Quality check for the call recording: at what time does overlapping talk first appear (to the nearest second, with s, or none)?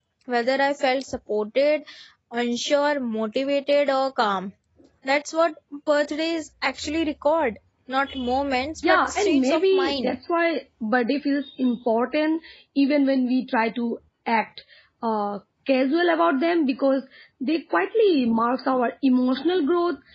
9 s